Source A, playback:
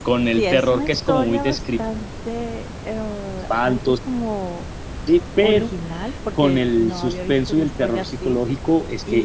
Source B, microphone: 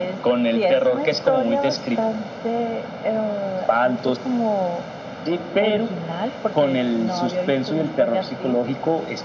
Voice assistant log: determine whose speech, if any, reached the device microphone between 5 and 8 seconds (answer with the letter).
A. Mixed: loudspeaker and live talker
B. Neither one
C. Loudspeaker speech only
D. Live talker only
C